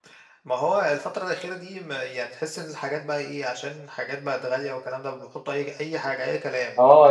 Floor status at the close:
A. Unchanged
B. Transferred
B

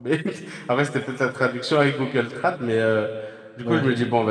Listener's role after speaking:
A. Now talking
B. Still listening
B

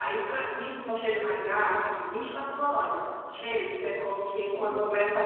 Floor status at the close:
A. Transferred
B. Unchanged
B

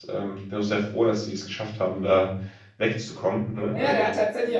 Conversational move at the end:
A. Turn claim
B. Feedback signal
A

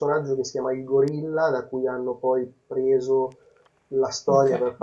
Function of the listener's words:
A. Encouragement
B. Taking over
A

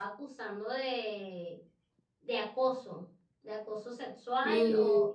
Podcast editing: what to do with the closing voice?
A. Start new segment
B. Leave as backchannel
B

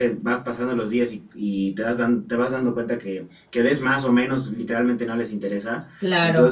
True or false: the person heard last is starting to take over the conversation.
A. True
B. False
B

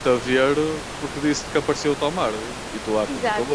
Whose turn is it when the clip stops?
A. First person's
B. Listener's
B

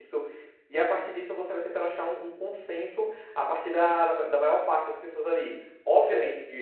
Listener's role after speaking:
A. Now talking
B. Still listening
B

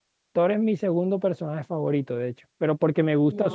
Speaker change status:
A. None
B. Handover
A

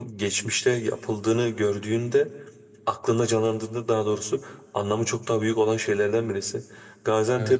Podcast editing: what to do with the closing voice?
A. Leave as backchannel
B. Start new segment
A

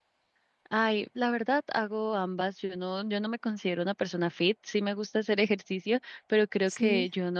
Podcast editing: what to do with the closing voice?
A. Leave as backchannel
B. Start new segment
A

